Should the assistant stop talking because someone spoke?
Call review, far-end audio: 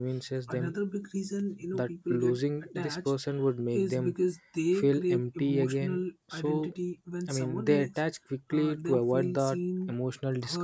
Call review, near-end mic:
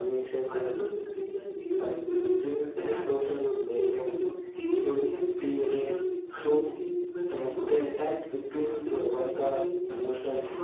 No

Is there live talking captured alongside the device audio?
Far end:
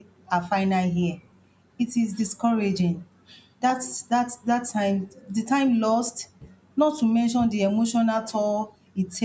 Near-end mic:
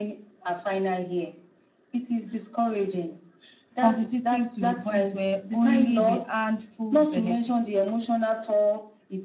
Yes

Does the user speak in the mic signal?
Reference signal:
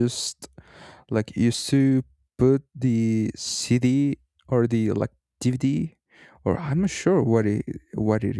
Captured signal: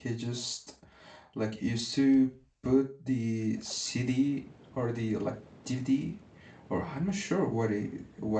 No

